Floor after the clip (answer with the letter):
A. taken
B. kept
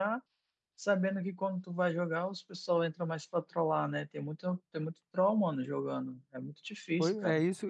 A